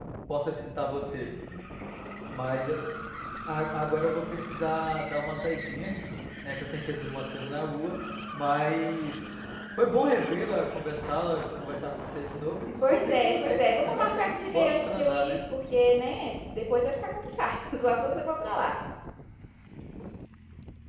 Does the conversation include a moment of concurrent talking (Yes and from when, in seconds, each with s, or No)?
Yes, from 12.8 s